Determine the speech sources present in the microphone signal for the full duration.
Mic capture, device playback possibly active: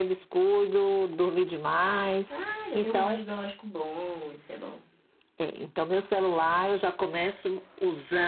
both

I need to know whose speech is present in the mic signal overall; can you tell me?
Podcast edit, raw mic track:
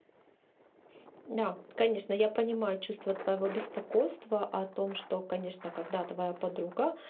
user only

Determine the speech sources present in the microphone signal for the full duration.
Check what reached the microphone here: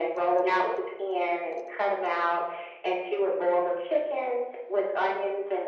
echo only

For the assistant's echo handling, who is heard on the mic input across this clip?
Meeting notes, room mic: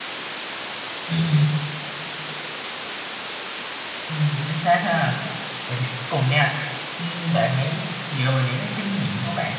user only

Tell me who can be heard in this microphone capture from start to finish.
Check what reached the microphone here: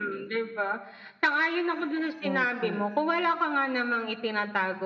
both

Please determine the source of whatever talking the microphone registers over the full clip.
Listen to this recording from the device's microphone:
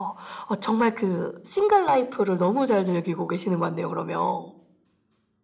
echo only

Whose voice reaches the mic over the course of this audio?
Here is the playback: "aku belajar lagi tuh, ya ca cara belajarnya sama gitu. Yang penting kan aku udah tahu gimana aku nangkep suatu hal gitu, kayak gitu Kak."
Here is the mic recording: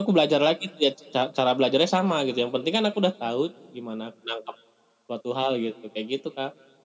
echo only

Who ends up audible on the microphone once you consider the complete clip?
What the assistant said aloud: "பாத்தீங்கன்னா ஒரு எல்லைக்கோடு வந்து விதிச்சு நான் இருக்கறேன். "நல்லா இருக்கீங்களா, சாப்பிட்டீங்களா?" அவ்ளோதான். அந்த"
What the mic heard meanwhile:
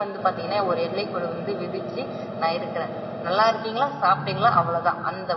echo only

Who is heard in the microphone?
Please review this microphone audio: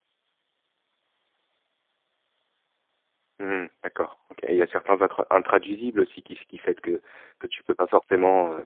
user only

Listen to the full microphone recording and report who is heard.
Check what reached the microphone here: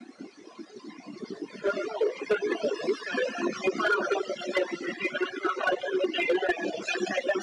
echo only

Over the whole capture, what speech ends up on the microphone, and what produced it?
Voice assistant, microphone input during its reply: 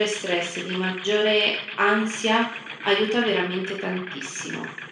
echo only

